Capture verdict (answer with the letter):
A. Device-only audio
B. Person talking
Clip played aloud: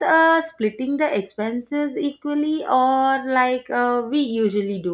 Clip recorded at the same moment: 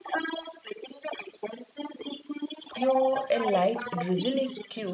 B